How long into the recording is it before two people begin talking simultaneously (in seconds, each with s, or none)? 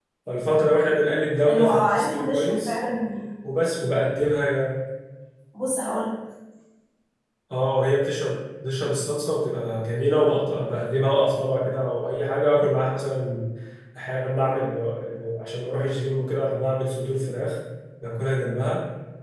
1.4 s